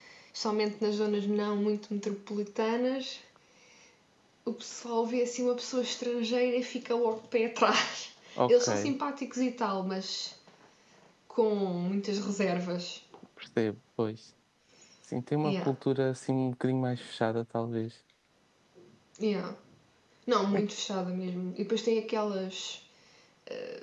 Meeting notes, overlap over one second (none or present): none